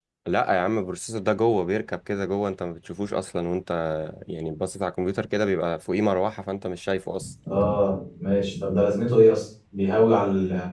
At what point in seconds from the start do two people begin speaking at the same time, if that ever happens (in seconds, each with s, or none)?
none